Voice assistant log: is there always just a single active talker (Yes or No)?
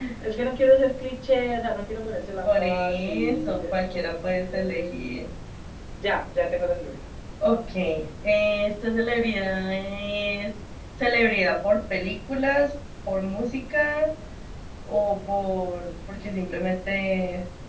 No